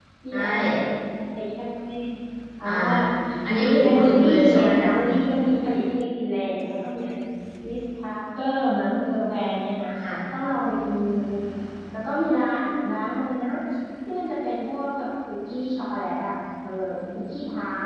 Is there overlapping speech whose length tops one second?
Yes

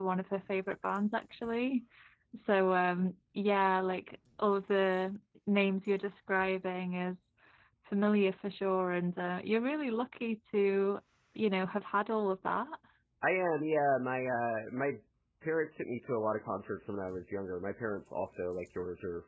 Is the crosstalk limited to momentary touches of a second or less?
Yes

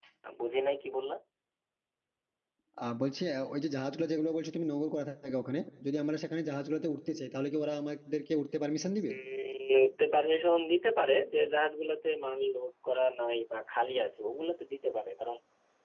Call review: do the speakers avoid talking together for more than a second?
Yes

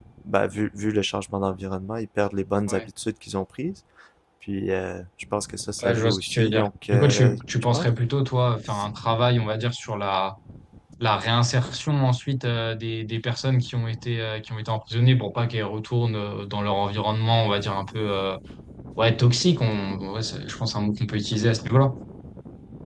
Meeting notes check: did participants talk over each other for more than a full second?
Yes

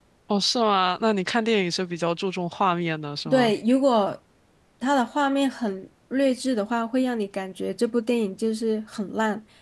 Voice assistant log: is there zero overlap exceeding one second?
Yes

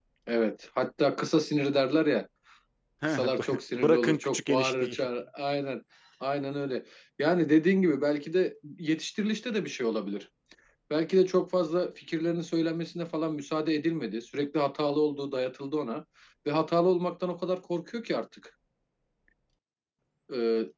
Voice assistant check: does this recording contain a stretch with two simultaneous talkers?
Yes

